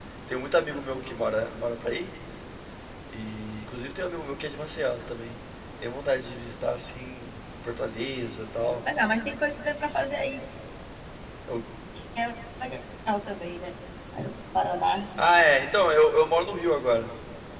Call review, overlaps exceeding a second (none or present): none